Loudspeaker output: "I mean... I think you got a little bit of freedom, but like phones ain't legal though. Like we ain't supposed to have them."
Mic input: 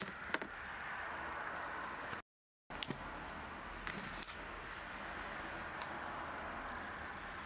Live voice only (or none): none